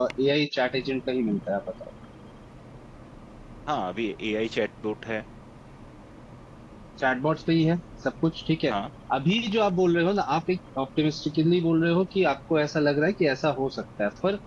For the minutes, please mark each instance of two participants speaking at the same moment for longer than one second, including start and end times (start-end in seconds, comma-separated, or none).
none